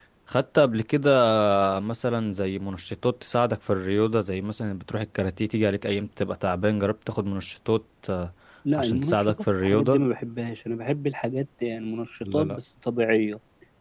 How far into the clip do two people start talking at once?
8.8 s

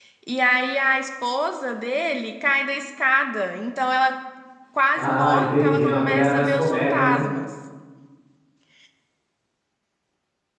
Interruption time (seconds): 5.0 s

